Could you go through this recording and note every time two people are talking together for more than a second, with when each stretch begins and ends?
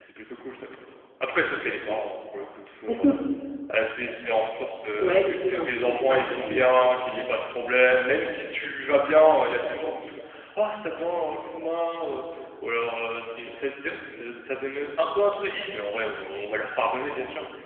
5.0-6.7

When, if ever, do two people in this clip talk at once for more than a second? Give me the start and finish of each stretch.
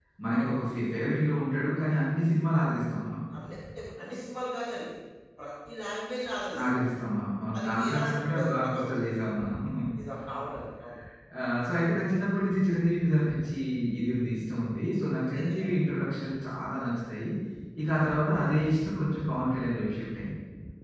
7.6-9.1

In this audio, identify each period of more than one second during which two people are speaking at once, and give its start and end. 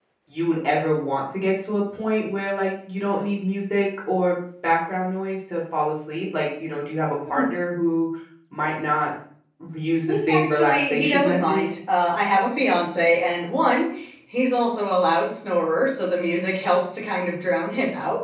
10.1-11.7

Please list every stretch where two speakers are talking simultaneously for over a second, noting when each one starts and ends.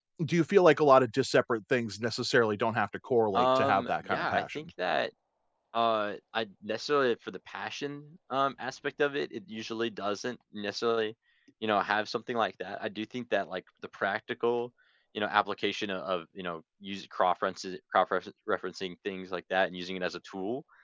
3.3-4.7

